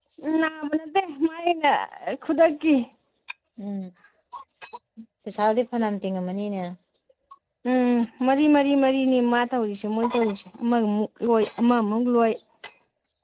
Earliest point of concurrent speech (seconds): none

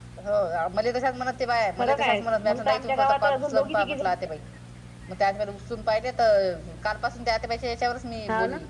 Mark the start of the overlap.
1.8 s

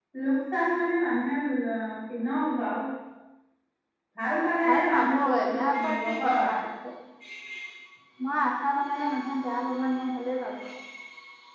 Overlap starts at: 4.7 s

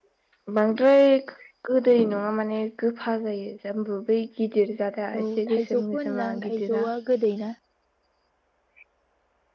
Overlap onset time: 5.1 s

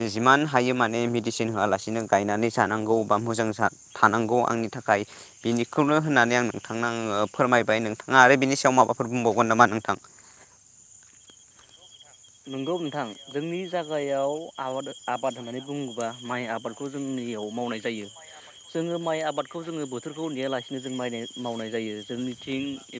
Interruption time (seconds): none

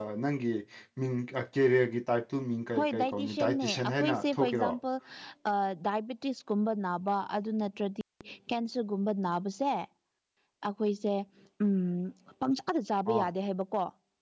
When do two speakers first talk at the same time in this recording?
2.7 s

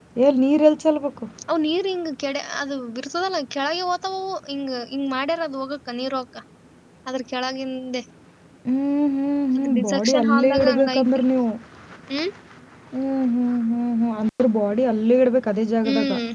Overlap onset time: 9.6 s

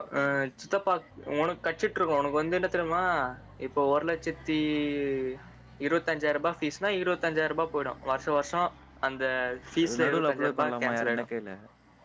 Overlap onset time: 9.8 s

